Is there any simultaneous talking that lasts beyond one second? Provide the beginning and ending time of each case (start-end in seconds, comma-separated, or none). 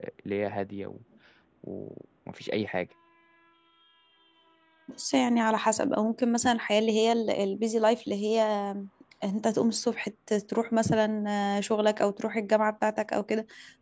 none